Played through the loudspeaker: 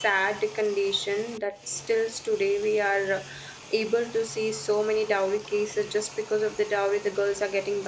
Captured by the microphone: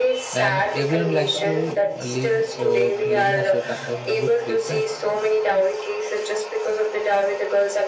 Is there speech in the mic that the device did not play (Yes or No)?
Yes